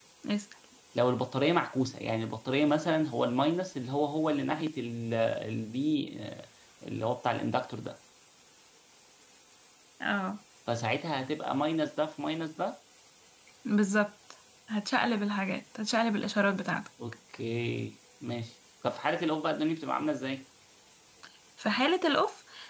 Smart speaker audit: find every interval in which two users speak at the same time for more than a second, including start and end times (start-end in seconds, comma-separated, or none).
none